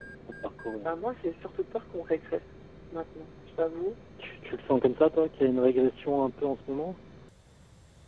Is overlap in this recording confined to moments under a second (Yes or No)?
Yes